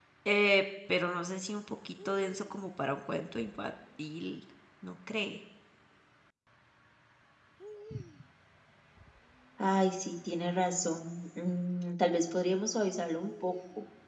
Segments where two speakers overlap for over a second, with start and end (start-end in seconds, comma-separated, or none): none